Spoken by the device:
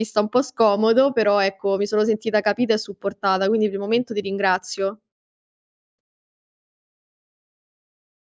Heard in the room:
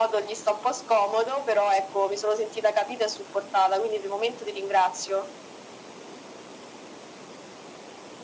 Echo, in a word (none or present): present